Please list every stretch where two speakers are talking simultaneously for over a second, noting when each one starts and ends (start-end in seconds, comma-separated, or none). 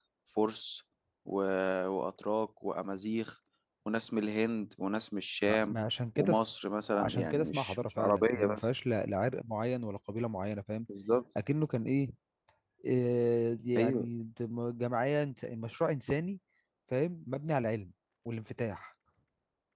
7.0-8.7